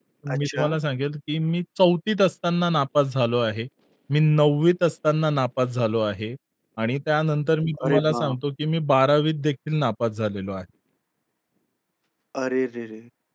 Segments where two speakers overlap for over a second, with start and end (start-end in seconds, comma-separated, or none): none